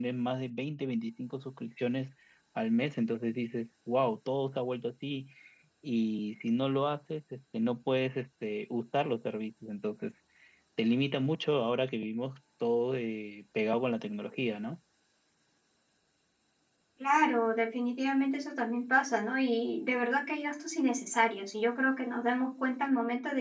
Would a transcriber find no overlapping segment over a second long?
Yes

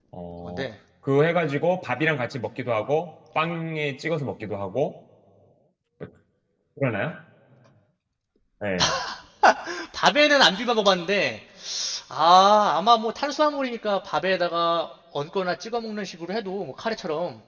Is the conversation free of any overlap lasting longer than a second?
Yes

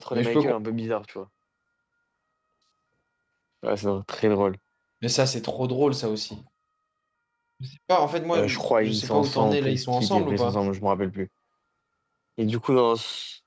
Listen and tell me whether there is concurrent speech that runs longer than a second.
Yes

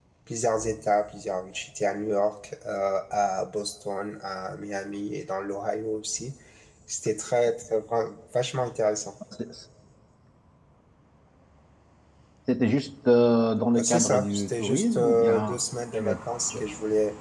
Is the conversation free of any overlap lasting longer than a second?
No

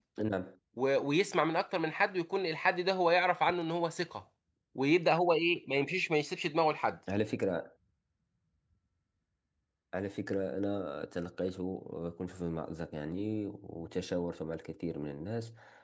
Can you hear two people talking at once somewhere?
No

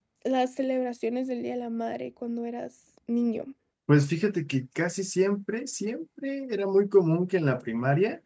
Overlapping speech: No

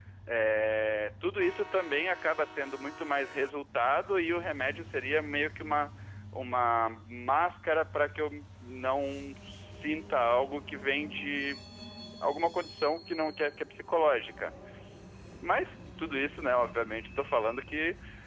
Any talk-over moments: No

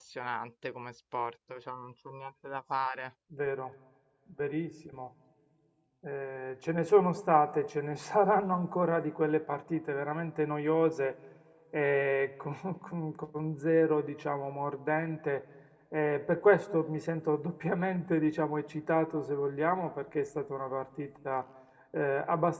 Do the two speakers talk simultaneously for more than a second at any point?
No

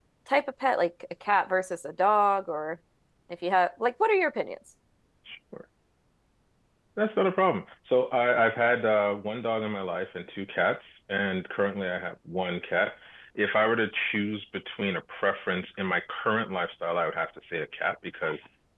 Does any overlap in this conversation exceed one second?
No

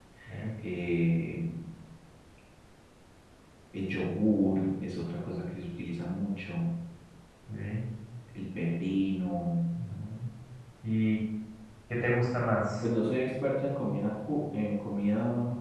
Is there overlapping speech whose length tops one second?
No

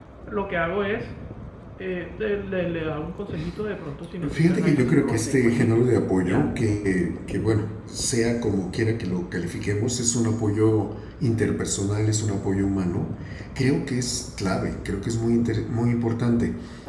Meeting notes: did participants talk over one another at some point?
Yes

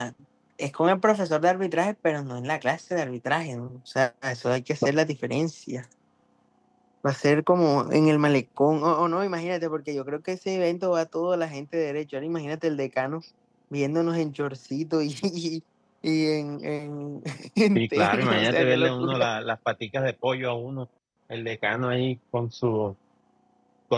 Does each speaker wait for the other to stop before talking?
No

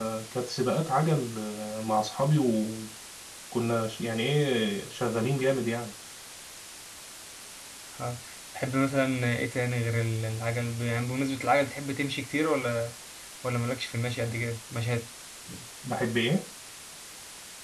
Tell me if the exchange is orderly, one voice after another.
Yes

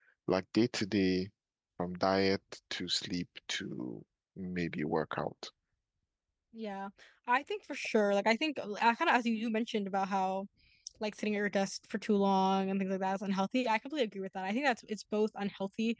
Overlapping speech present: No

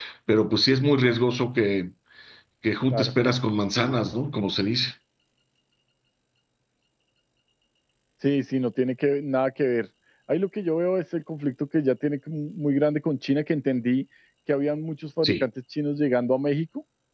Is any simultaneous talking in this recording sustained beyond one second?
No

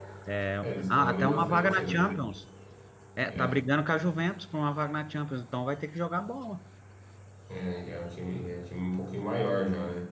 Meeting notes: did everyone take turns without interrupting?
No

